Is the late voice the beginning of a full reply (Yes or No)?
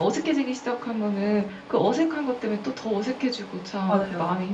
No